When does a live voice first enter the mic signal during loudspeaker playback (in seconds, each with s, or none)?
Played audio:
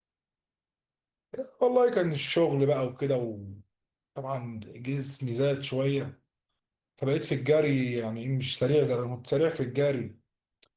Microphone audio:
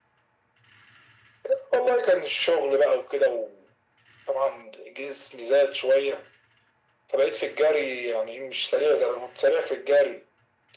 none